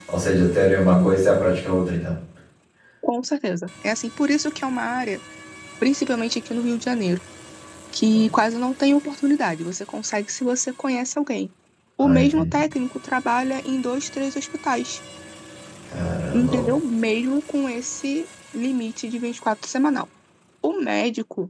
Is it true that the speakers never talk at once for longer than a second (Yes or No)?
Yes